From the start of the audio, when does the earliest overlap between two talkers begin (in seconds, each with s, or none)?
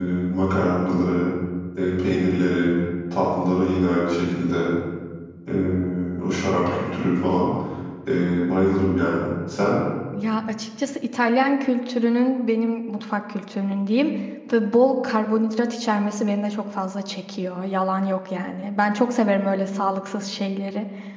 none